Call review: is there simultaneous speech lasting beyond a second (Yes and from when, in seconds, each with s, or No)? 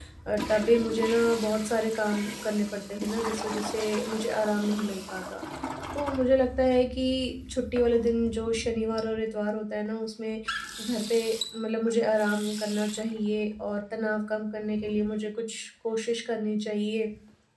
No